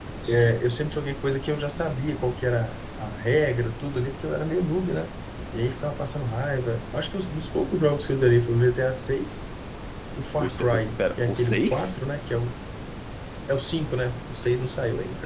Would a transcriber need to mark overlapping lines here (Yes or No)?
Yes